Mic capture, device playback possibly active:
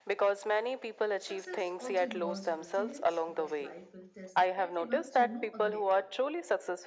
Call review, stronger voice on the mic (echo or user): echo